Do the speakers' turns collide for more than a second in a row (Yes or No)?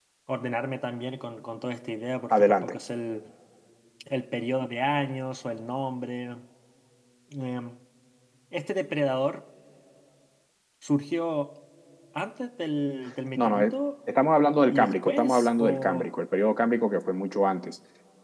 Yes